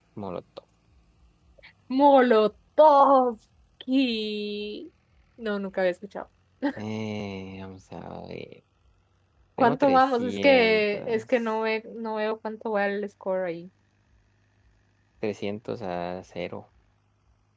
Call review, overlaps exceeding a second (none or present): present